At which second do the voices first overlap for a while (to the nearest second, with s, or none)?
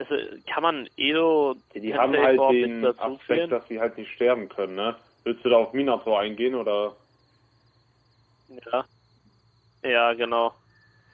2 s